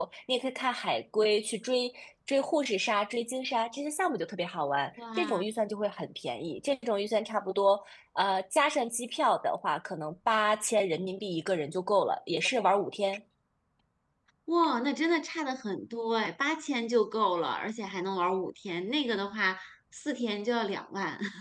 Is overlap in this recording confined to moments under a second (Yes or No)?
Yes